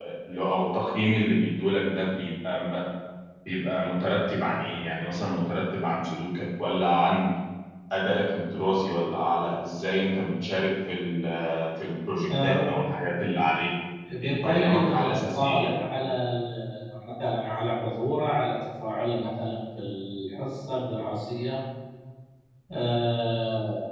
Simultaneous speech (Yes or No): Yes